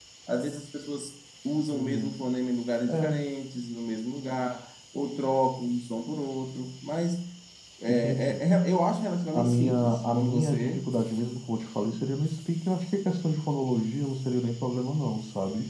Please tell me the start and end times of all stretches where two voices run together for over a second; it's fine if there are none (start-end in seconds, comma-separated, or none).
9.3-10.8